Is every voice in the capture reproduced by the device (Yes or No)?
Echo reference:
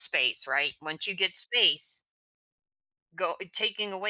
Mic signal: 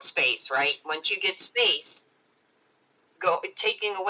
Yes